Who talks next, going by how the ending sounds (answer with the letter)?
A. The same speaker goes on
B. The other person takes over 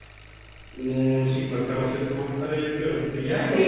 A